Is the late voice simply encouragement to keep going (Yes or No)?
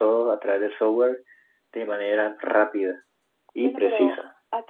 No